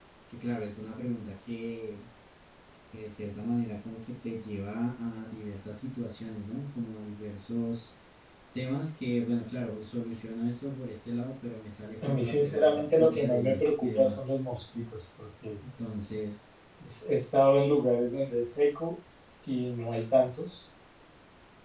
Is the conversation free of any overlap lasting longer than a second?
No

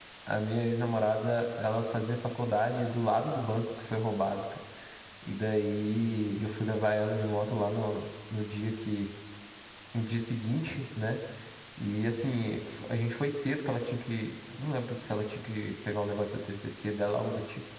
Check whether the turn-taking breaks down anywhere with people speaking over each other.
No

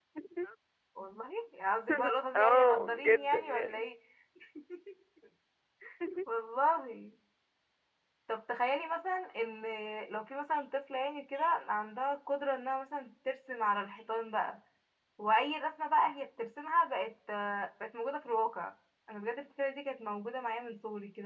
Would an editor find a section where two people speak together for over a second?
Yes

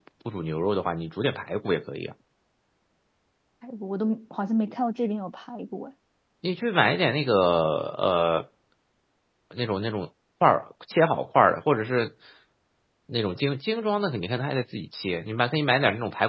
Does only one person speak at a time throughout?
Yes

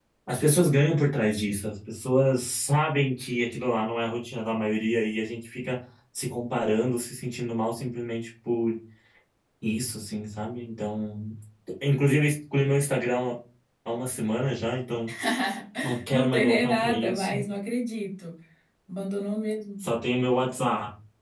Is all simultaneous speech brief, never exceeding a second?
No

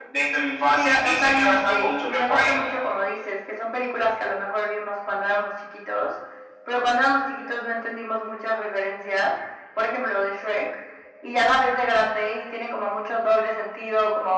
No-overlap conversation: No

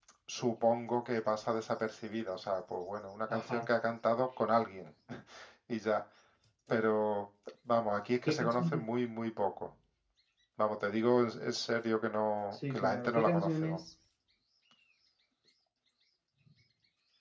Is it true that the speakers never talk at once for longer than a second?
No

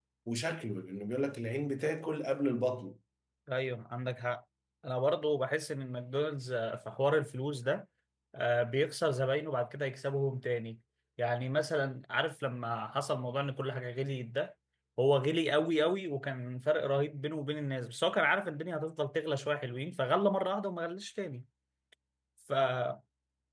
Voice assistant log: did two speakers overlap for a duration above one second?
No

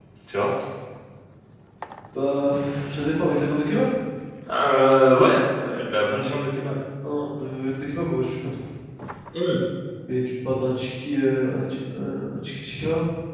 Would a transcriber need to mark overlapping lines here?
No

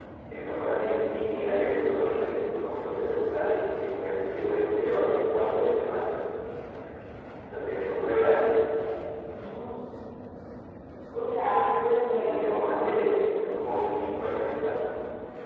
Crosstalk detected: Yes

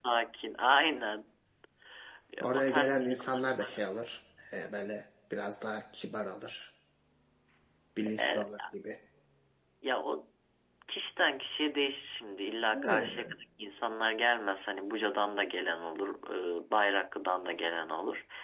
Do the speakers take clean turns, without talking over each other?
No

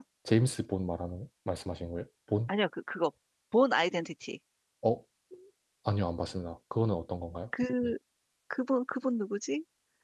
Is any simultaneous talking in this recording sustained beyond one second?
No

